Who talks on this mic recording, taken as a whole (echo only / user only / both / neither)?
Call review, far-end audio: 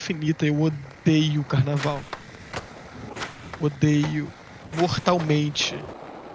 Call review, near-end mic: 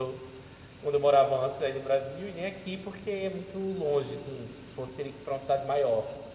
user only